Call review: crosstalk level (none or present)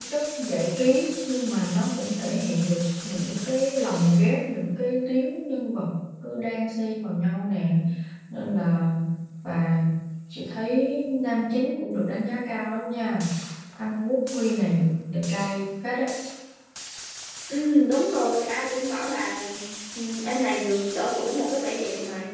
none